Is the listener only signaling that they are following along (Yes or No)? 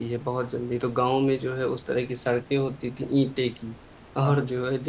Yes